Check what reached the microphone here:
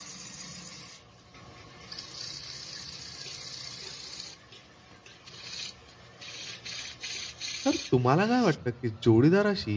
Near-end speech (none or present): present